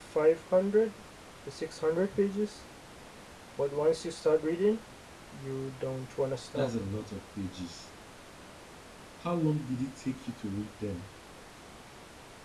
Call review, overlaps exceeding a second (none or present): none